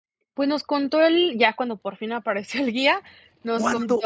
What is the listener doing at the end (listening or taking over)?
taking over